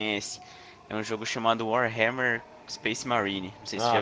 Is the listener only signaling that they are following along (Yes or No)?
No